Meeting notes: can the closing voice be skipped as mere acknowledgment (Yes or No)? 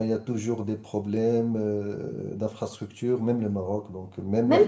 No